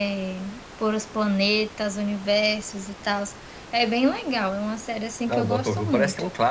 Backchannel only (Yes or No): No